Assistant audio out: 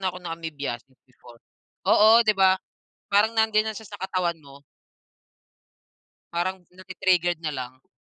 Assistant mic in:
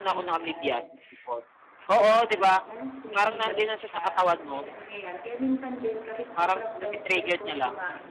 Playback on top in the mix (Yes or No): Yes